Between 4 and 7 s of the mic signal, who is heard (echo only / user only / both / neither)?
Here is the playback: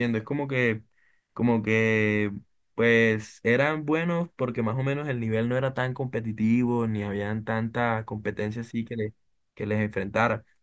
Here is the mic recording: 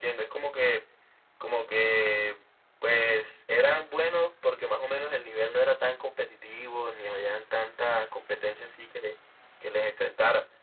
echo only